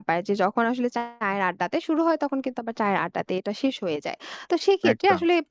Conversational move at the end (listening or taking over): listening